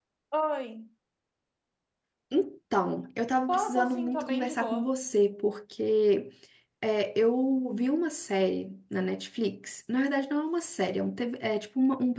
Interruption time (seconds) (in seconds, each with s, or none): 3.5 s